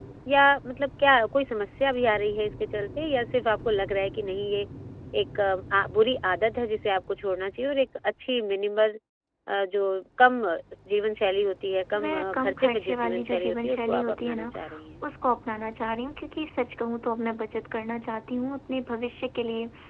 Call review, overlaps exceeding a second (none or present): present